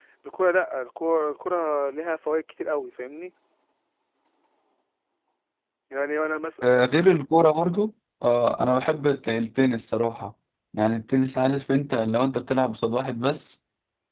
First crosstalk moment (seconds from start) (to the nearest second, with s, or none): none